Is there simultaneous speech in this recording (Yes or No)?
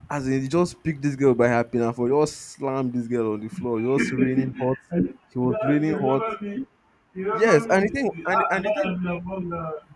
Yes